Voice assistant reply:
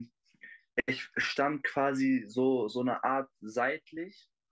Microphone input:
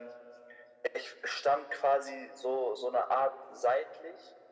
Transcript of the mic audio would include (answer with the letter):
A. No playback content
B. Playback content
B